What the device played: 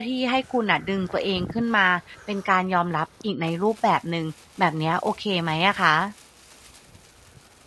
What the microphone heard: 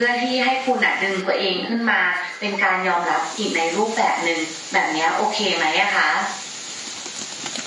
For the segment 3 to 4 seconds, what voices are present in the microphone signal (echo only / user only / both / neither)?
echo only